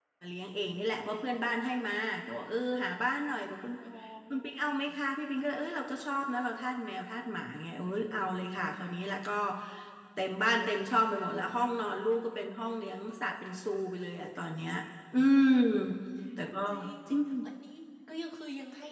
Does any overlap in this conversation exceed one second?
No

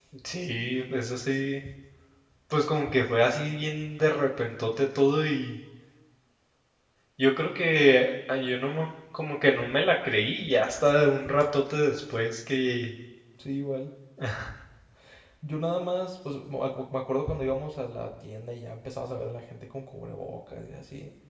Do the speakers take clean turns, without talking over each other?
Yes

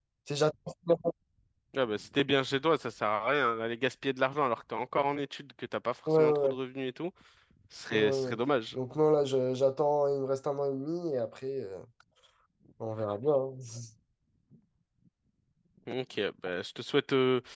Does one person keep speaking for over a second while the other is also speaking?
No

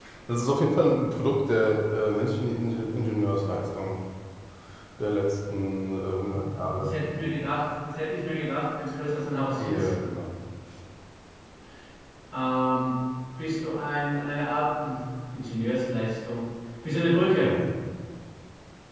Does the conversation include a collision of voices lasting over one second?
No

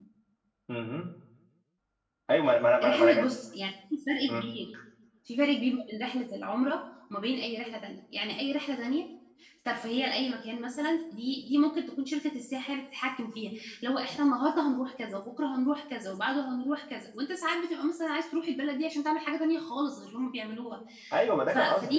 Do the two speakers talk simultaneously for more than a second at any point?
No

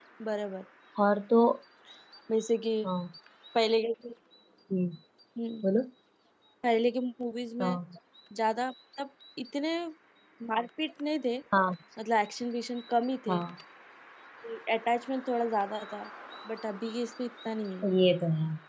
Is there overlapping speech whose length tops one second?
No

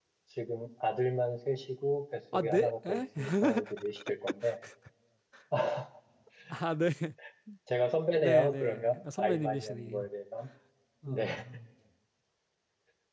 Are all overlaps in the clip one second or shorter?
No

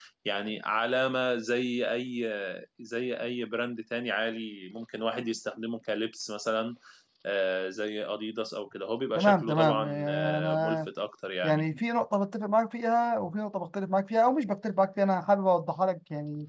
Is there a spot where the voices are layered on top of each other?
Yes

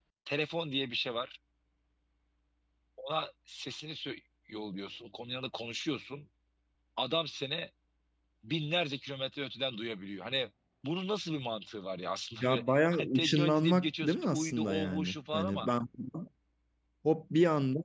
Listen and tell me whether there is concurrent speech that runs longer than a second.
Yes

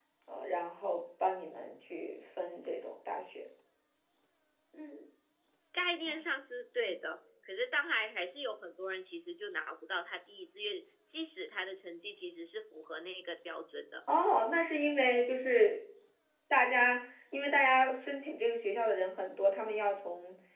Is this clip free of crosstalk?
Yes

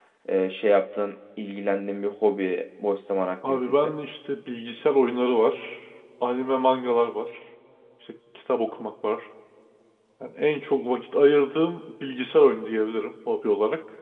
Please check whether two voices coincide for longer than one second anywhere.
No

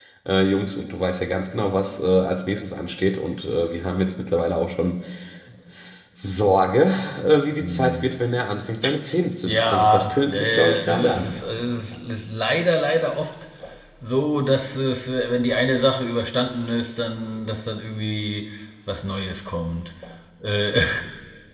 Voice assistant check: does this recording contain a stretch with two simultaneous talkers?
Yes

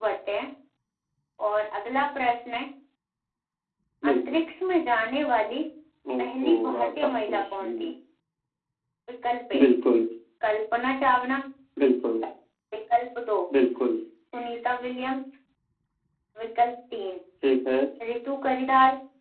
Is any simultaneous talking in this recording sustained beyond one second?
Yes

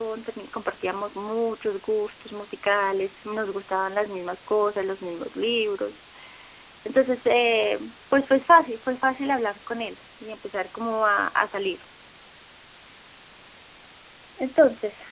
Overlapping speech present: No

